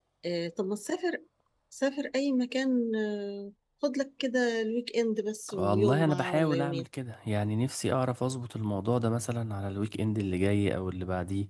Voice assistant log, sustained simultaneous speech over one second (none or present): present